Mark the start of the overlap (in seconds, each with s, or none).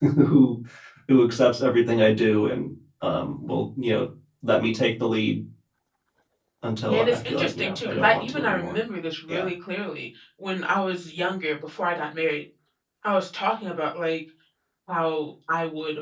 6.8 s